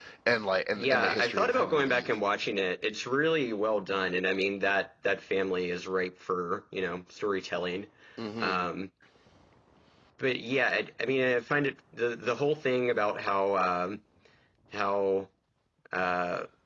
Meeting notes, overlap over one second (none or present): present